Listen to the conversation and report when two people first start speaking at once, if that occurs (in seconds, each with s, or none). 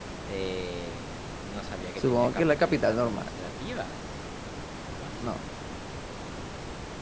2.0 s